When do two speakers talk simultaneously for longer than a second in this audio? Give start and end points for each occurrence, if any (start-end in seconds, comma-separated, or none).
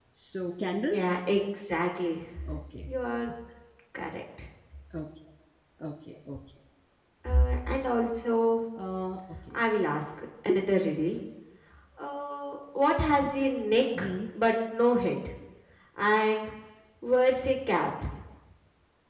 none